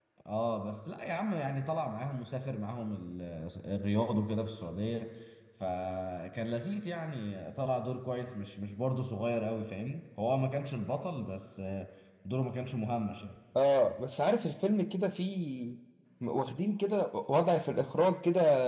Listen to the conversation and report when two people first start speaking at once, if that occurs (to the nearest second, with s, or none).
none